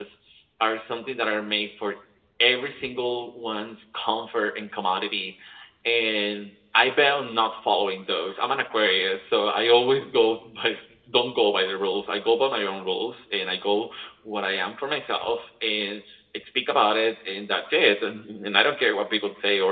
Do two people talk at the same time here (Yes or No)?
No